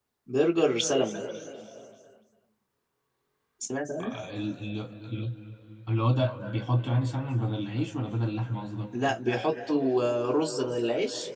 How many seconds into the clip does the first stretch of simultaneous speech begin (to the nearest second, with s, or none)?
none